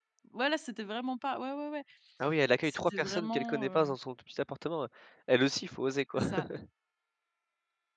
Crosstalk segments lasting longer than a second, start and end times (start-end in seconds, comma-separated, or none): 2.6-3.9